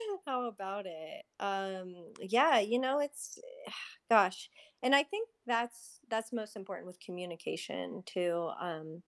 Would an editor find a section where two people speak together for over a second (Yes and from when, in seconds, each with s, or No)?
No